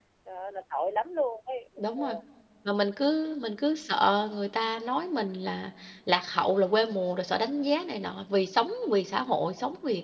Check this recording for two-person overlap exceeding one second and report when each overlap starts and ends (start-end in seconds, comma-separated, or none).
none